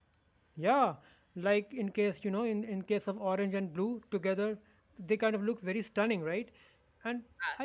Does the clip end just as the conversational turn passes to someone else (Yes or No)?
No